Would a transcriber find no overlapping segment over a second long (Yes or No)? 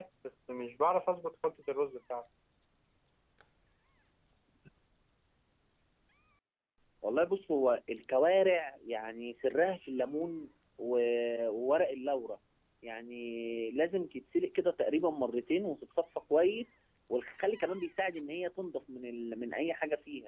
Yes